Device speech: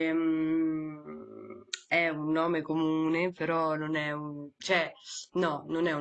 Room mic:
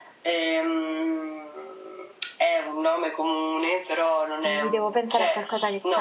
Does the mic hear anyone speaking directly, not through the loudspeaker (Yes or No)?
Yes